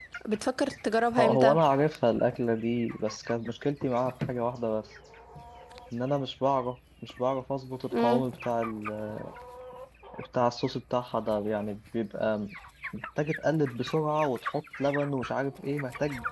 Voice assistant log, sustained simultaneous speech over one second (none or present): none